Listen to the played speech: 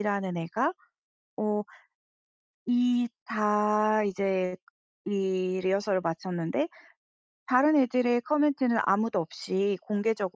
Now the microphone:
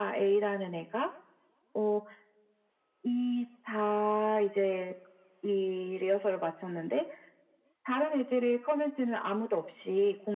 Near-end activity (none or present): none